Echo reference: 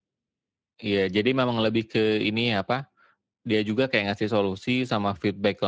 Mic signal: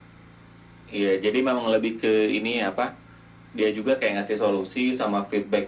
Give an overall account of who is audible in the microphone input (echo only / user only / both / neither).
echo only